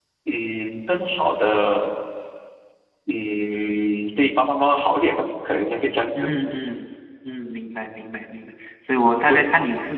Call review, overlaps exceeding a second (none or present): none